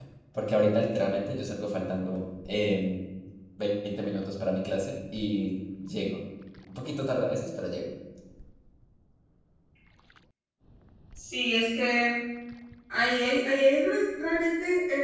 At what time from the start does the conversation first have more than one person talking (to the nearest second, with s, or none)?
none